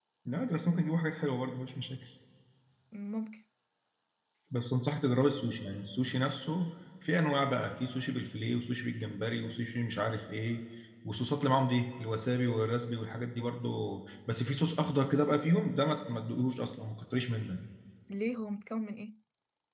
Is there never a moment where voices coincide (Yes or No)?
Yes